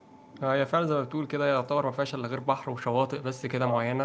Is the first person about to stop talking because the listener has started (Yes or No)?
Yes